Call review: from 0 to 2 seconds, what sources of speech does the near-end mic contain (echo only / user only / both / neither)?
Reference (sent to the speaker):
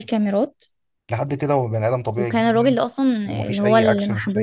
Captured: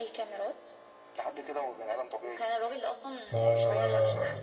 echo only